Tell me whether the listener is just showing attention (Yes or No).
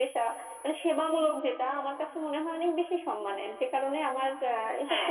No